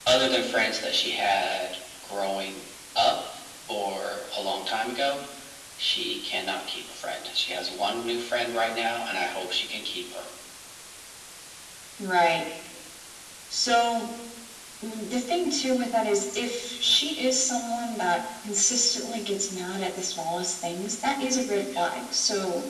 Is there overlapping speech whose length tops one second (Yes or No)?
No